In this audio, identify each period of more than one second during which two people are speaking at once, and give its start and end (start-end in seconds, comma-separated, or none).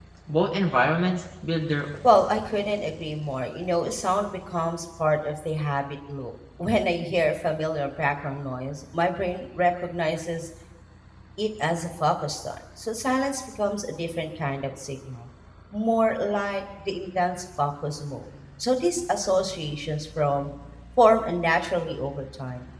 none